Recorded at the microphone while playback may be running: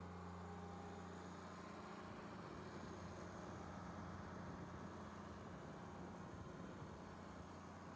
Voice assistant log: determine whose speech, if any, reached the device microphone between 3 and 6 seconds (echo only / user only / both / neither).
neither